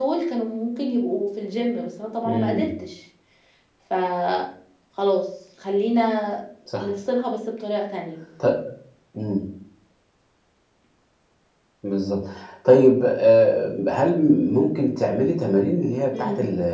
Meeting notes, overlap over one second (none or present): none